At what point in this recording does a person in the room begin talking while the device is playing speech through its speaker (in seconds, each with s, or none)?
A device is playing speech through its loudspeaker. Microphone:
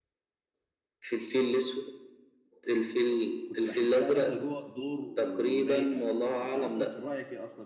3.4 s